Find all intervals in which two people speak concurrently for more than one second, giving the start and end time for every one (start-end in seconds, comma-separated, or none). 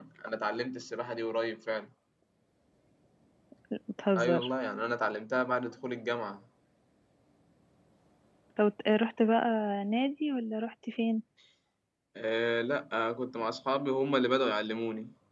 none